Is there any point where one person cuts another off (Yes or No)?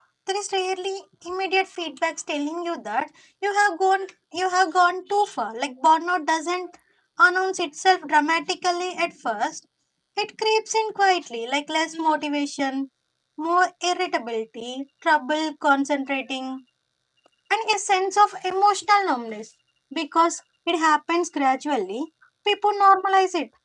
No